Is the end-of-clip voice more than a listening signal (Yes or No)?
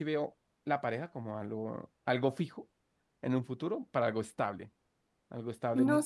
Yes